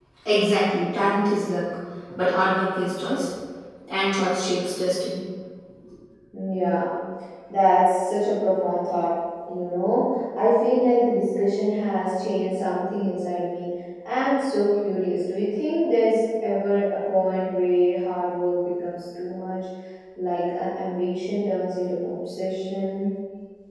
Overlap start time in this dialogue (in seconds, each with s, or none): none